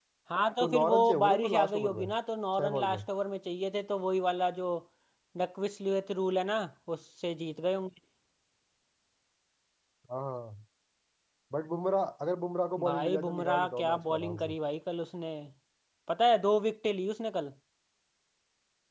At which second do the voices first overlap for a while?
0.6 s

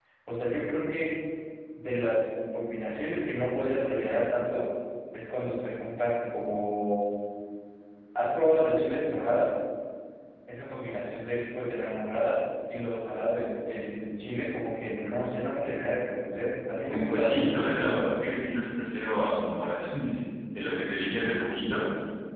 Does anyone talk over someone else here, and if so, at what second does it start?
16.8 s

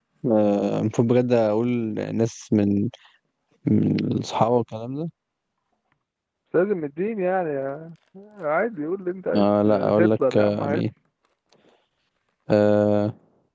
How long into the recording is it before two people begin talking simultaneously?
9.3 s

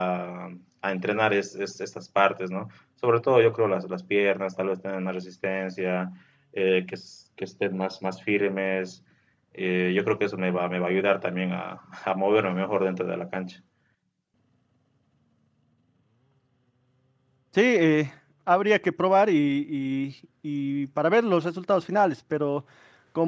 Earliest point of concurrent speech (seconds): none

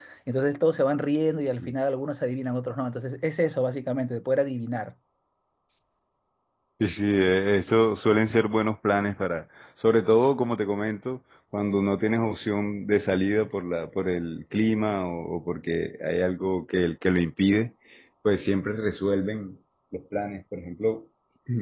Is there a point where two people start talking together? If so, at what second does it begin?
none

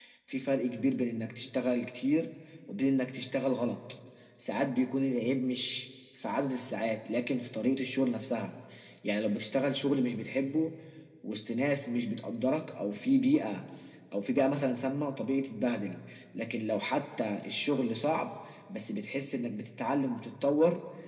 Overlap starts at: none

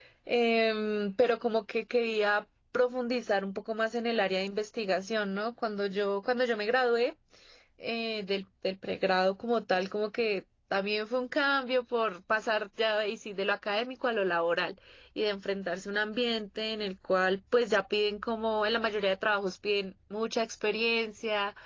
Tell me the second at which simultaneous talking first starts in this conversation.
none

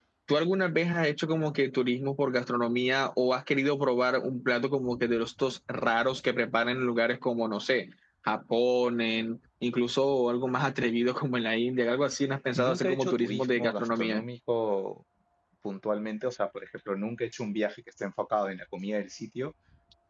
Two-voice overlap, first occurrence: 12.6 s

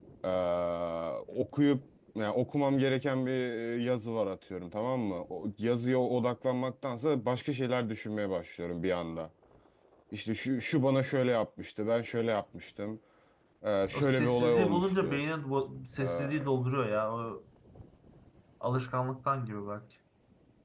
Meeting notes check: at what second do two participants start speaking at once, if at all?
13.9 s

